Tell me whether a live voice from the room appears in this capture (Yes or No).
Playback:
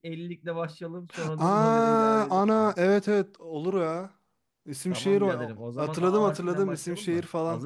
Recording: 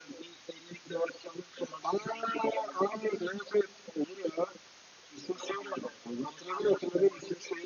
No